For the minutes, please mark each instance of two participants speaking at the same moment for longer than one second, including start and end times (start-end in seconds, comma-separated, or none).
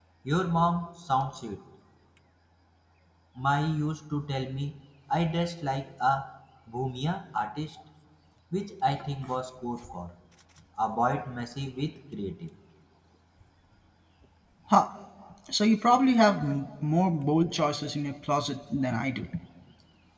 none